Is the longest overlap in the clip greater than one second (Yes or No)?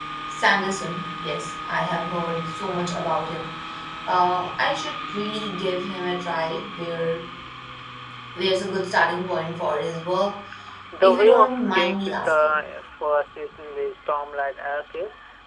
Yes